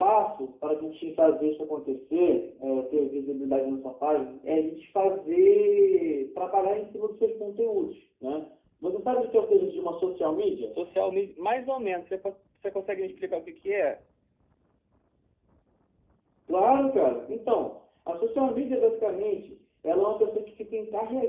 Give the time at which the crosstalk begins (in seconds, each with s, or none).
none